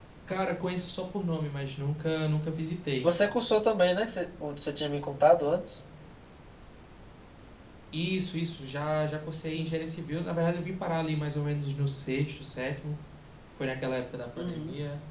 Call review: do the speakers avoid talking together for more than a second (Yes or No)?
Yes